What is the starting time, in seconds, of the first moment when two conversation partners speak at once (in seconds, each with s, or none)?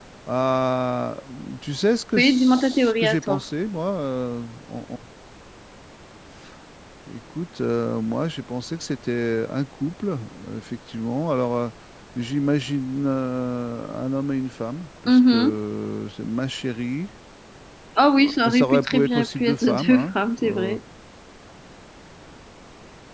2.2 s